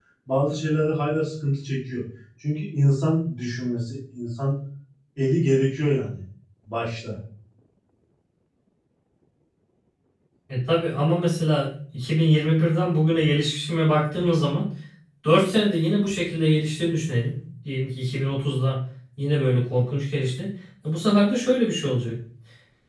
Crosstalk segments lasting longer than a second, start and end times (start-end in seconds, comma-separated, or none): none